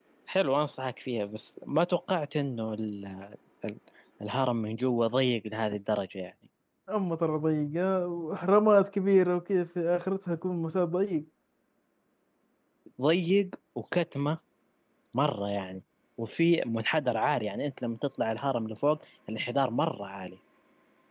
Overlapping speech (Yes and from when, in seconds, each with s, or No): No